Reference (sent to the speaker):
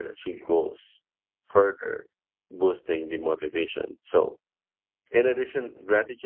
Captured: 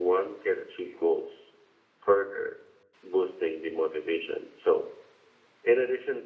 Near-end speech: none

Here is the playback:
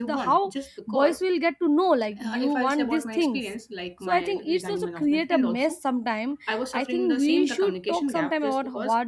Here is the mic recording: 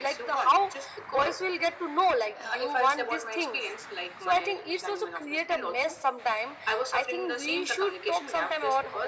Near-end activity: none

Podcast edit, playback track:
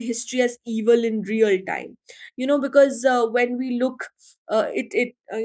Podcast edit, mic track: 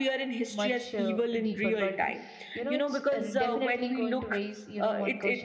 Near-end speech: present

